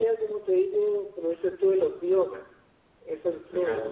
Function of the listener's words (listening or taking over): taking over